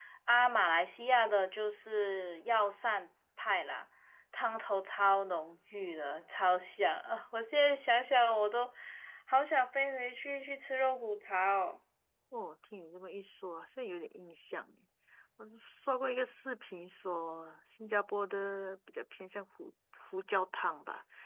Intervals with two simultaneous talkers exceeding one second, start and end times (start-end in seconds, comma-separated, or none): none